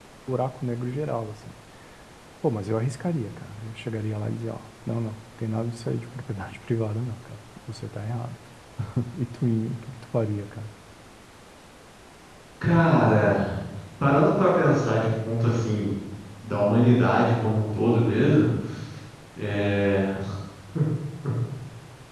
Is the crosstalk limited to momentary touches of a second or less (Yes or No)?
Yes